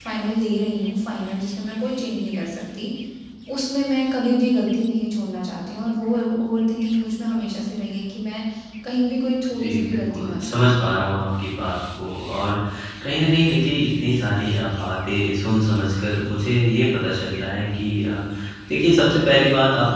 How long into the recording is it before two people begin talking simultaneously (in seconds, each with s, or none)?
9.6 s